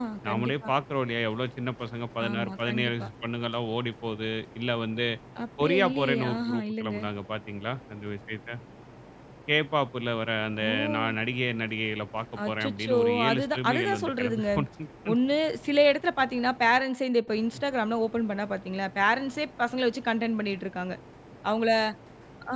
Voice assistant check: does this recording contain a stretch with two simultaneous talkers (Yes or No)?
Yes